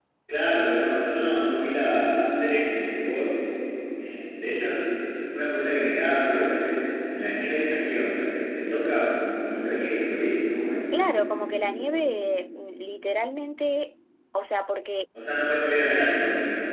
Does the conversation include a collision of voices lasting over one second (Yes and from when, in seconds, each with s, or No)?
No